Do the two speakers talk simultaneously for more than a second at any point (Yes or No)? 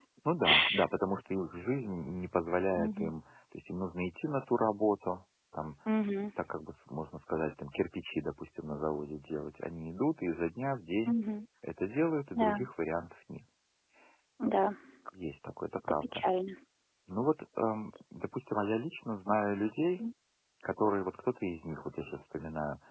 No